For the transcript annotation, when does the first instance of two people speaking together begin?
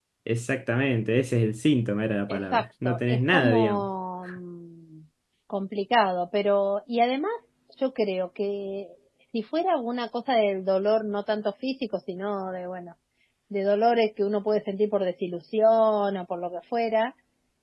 2 s

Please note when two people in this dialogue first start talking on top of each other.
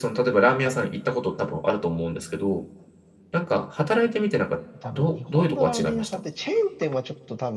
5 s

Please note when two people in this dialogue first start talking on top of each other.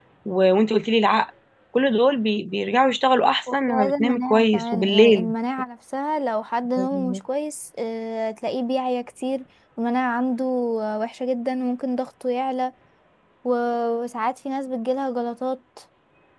4 s

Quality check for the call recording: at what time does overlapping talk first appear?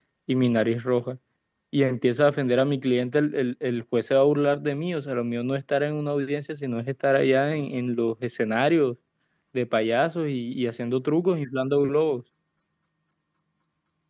none

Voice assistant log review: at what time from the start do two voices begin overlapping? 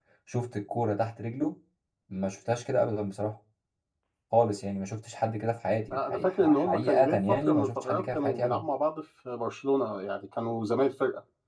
6 s

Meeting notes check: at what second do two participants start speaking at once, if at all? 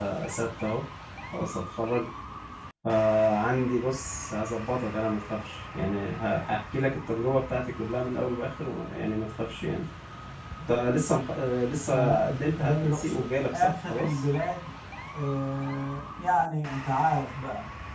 12 s

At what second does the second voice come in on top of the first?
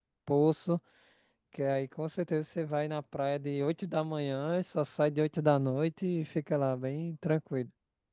none

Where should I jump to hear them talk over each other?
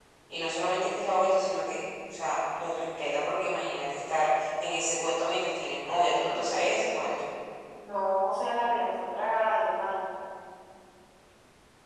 none

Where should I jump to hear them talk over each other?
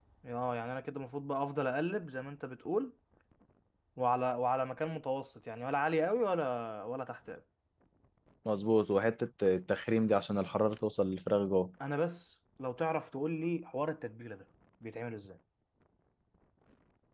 none

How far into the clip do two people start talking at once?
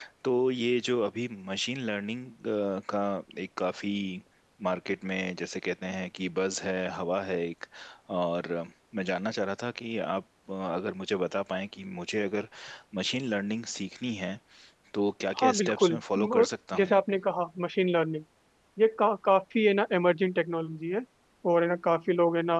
15 s

